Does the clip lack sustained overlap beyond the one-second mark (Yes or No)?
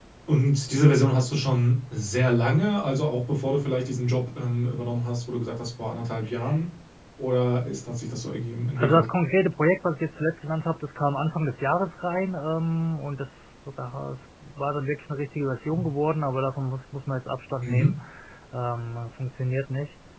Yes